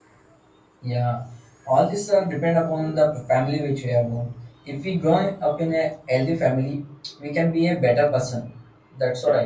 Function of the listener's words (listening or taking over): listening